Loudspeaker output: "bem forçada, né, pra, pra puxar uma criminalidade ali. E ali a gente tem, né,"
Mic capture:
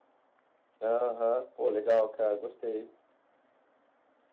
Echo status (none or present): none